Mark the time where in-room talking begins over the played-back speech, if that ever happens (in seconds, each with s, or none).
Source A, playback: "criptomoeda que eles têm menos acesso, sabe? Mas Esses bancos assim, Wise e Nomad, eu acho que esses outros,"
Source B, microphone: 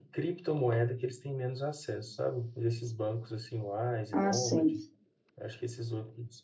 4.1 s